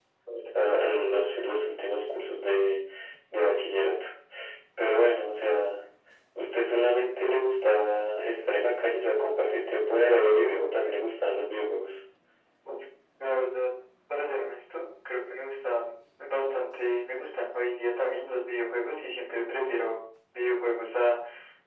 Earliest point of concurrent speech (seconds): none

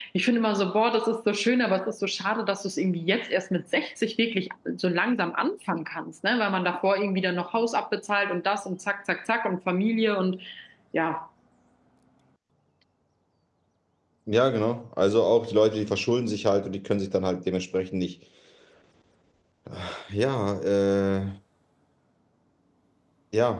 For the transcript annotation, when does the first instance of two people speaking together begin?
none

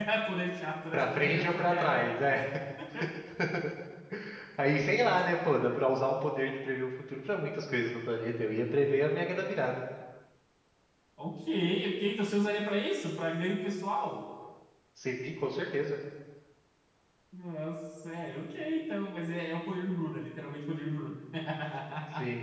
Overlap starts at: 0.9 s

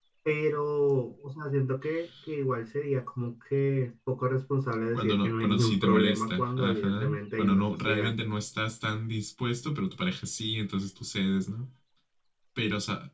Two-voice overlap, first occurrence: 4.9 s

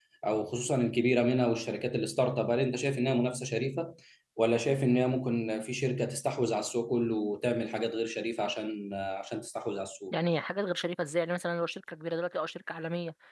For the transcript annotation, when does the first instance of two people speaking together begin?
none

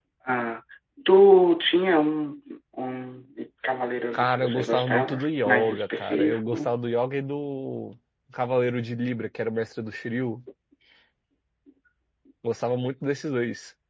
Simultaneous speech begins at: 4.1 s

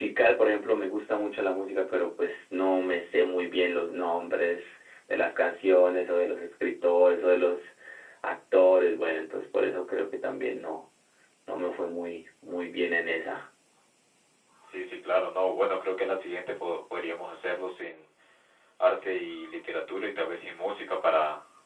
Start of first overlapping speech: none

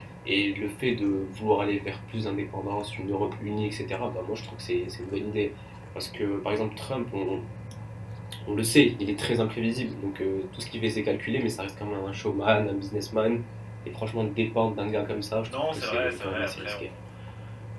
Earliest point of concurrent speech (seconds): 15.5 s

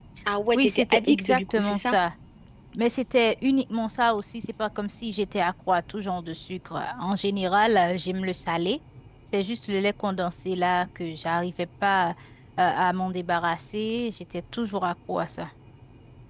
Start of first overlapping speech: 0.6 s

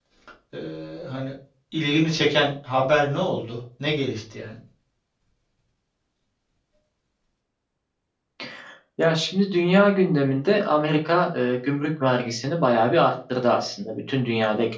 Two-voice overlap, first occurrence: none

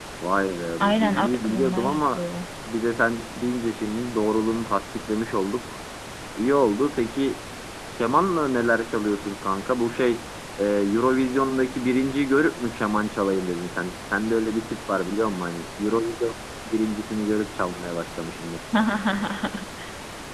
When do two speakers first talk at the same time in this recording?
0.8 s

